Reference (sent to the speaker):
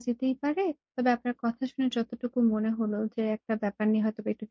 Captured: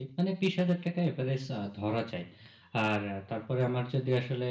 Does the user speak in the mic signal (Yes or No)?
Yes